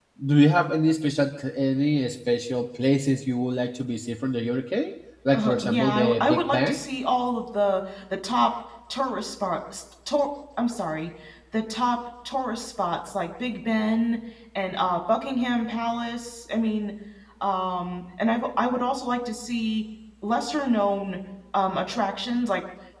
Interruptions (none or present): present